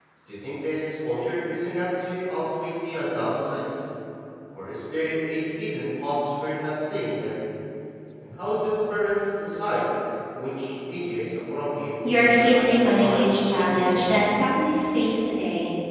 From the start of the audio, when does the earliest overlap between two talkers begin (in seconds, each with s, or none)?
12.0 s